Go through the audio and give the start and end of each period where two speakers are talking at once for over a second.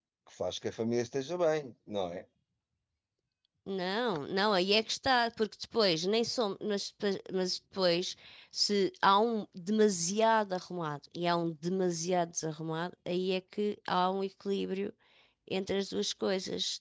none

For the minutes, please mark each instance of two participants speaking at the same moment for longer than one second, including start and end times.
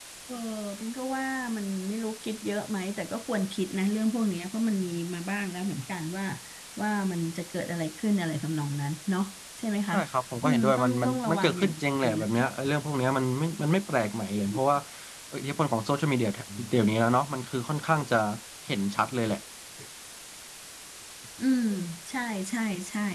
10.4-12.3

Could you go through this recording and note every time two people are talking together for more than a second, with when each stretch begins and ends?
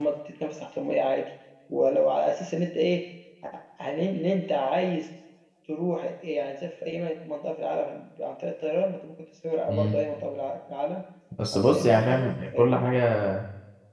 11.5-12.8

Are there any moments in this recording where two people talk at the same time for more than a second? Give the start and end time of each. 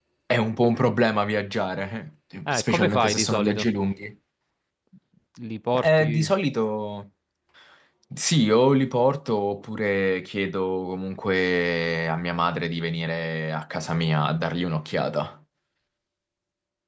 2.5-3.7

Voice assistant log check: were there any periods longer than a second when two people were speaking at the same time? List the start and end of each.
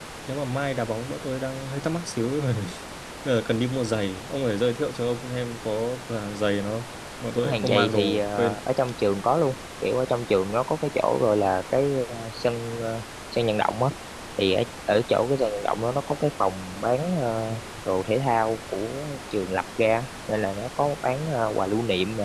7.4-8.6

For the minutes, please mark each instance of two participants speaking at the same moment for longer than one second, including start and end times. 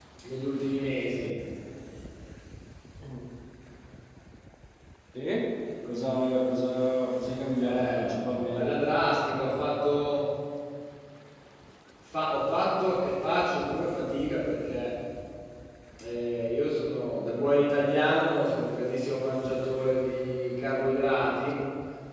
7.6-8.8

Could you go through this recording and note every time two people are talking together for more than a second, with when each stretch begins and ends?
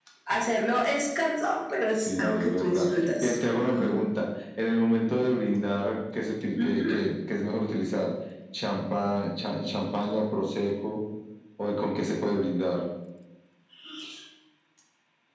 2.0-3.4

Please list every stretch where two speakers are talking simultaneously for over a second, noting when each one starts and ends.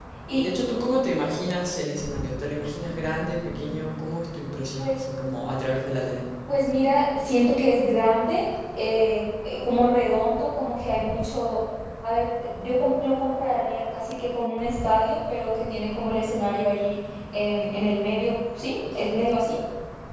none

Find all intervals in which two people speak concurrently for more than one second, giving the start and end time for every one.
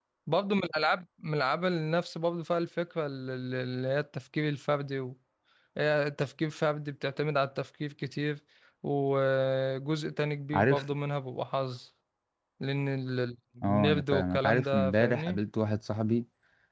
13.6-15.4

